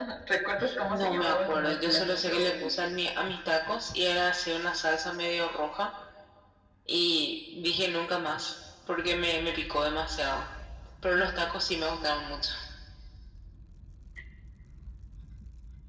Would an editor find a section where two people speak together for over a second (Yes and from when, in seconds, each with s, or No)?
Yes, from 0.9 s